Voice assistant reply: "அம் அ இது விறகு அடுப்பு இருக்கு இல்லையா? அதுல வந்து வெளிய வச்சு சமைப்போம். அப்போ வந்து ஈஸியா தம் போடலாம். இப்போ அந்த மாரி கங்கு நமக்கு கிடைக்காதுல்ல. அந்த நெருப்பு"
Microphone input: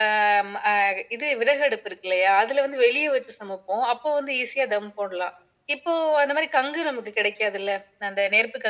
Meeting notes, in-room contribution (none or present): none